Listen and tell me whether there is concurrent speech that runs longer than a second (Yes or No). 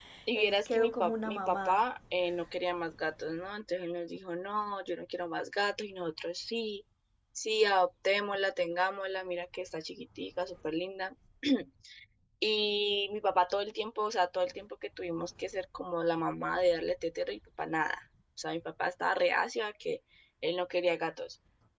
Yes